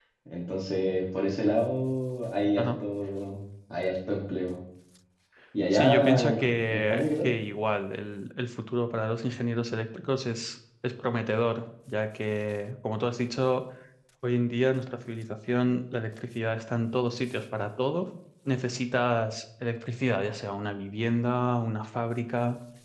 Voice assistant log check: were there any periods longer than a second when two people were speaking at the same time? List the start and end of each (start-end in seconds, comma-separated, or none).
5.7-7.3